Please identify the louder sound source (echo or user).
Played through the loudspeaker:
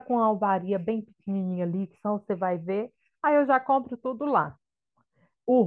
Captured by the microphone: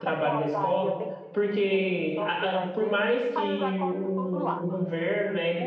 user